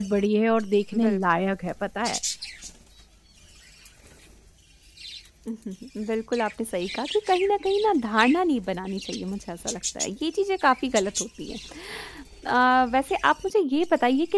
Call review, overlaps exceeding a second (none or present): none